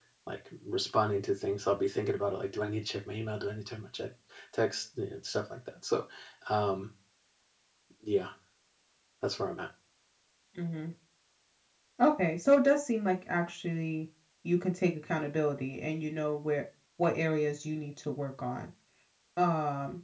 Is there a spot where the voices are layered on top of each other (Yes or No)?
No